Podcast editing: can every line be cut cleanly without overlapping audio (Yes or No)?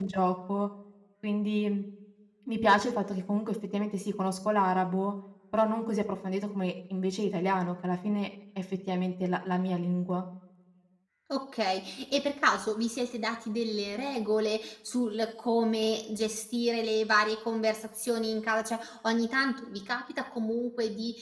Yes